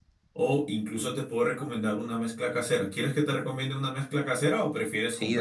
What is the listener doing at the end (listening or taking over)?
taking over